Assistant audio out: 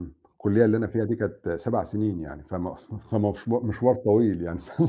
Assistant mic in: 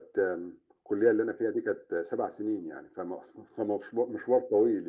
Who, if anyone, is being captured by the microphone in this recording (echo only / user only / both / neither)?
echo only